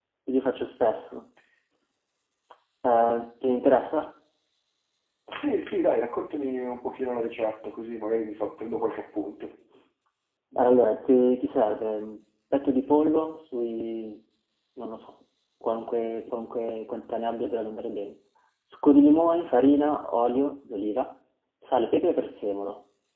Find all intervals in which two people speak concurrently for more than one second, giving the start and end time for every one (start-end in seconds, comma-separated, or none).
none